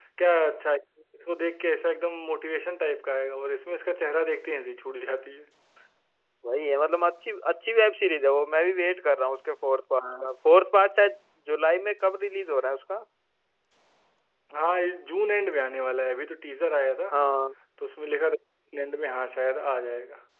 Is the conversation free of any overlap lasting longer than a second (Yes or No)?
Yes